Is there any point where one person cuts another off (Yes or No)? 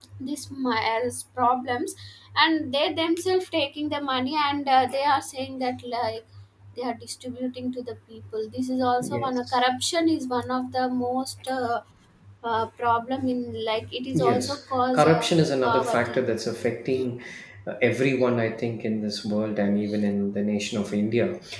Yes